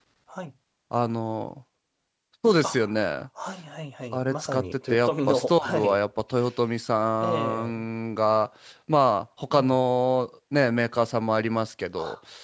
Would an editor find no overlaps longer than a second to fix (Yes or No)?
No